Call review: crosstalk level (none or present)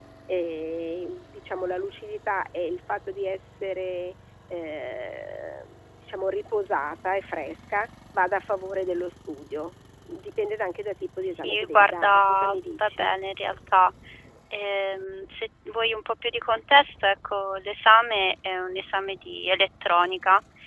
present